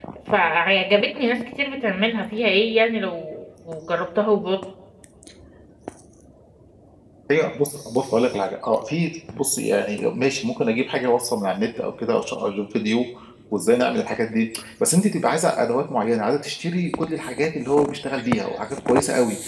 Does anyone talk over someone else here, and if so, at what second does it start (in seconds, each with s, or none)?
none